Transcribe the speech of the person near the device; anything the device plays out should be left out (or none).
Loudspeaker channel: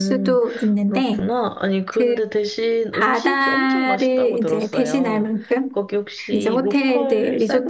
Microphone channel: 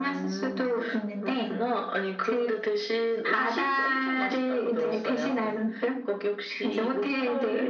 none